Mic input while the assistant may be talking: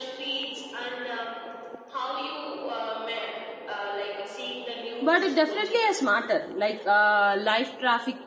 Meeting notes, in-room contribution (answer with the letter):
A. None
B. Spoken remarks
B